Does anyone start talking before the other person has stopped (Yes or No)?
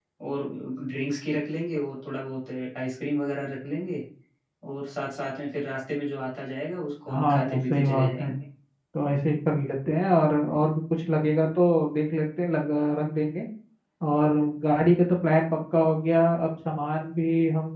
Yes